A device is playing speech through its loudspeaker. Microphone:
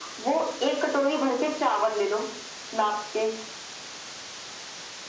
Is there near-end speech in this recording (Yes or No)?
No